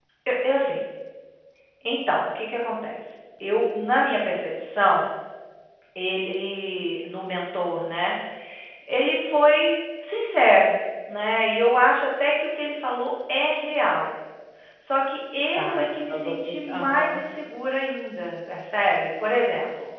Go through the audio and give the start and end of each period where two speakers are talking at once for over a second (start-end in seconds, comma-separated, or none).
15.6-17.2